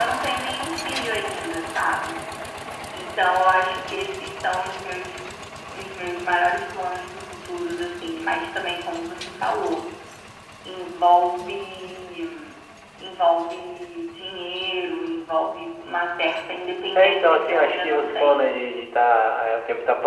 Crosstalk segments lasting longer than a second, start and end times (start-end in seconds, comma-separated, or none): 16.9-18.6